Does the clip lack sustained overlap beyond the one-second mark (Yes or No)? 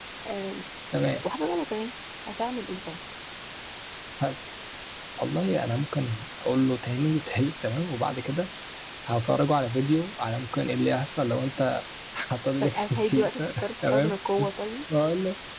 No